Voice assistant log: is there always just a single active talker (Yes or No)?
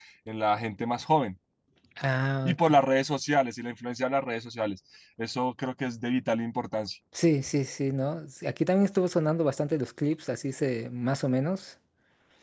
Yes